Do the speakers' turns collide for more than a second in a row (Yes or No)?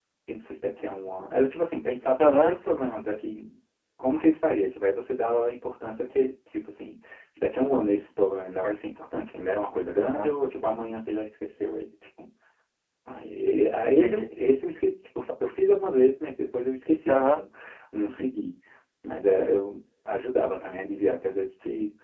No